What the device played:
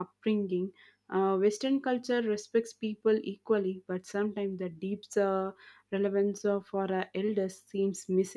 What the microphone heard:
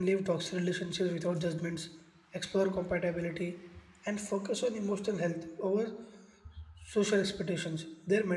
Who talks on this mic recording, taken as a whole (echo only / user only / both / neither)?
user only